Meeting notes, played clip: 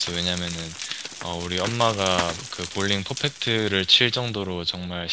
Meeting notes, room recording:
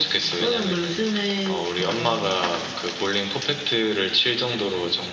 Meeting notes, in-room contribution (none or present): present